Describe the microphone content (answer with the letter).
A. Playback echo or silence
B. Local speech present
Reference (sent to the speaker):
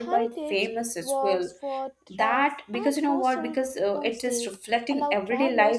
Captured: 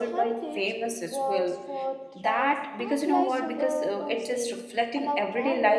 B